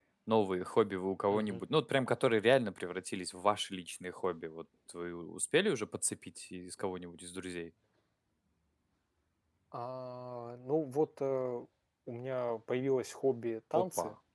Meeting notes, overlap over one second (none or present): none